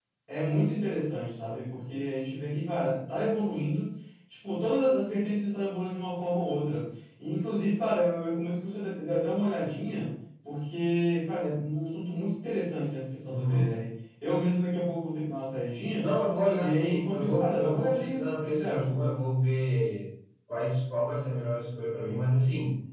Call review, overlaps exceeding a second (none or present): present